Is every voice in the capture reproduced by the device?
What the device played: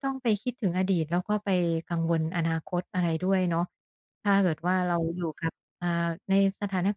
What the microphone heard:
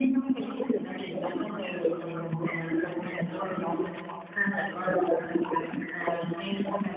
Yes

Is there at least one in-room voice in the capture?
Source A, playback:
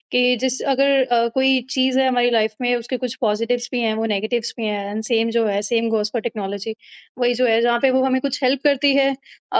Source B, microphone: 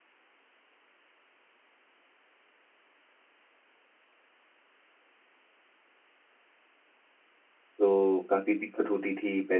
Yes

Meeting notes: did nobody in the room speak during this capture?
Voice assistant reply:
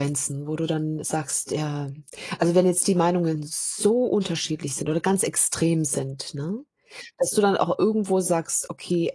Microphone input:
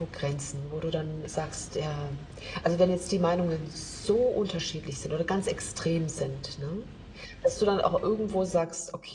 Yes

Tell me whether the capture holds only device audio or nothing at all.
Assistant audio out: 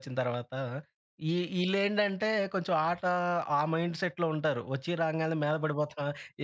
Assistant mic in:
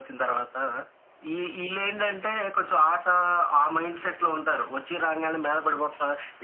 Yes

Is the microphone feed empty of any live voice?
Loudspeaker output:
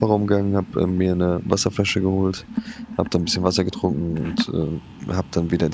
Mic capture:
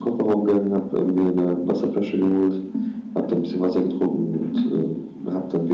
Yes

